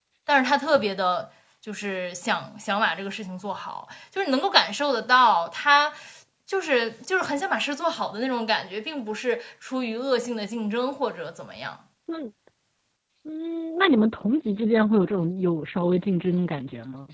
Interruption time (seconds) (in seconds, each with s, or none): none